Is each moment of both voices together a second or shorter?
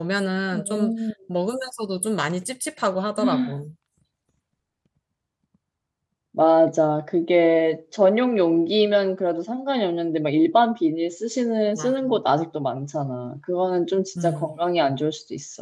Yes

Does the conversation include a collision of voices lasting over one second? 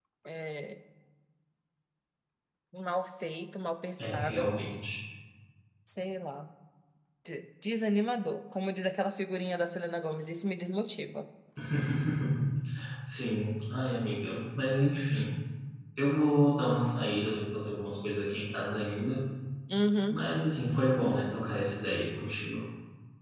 No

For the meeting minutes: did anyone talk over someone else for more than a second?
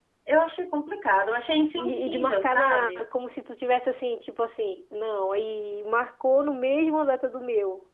Yes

